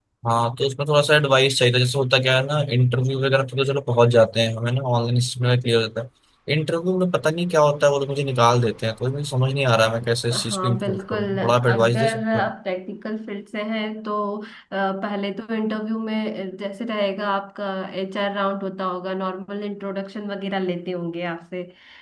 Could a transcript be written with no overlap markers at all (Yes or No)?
No